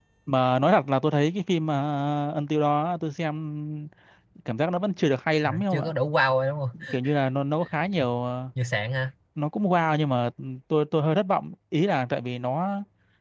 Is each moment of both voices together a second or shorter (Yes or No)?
Yes